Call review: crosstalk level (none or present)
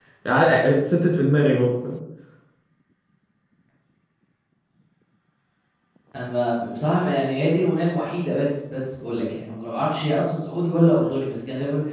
none